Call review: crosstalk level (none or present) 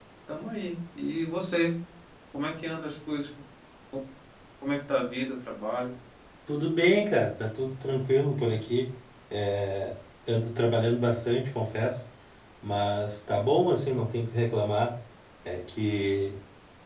none